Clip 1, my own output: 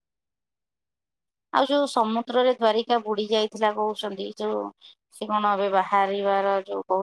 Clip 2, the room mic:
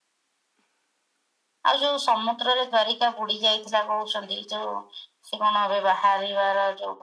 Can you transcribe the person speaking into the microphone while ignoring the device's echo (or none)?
none